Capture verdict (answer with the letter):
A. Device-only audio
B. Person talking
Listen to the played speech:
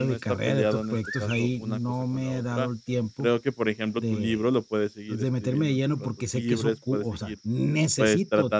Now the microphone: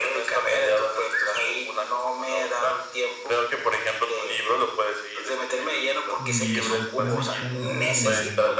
B